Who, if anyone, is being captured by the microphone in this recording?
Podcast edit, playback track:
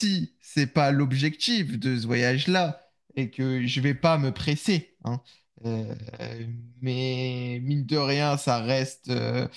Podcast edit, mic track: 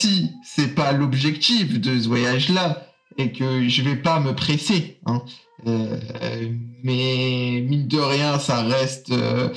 echo only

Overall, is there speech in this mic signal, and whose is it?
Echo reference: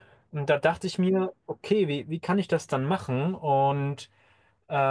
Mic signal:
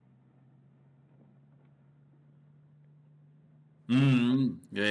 user only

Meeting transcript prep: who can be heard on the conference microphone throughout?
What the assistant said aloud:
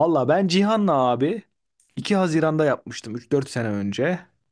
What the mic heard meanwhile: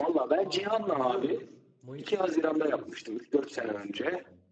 both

